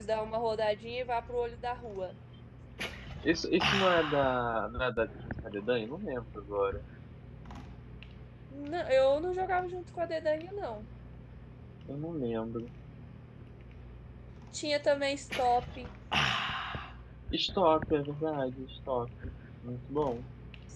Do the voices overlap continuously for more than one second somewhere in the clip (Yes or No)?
No